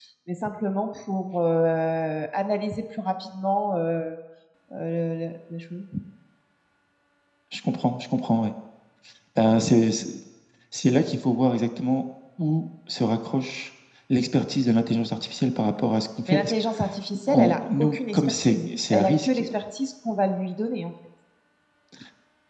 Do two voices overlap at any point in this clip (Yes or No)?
Yes